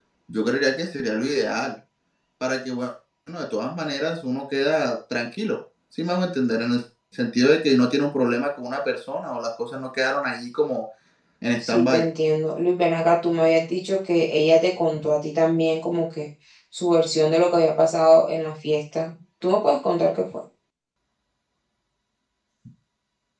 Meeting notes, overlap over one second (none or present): none